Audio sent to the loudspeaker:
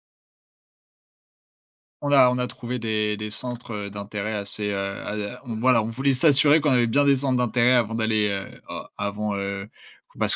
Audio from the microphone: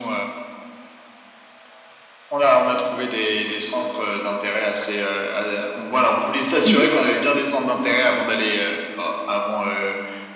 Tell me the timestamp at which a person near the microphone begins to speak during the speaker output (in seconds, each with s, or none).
6.6 s